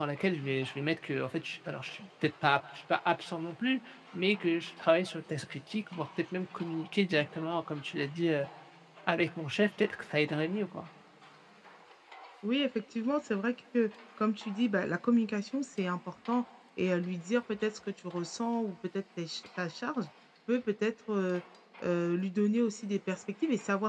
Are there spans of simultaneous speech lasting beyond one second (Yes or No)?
No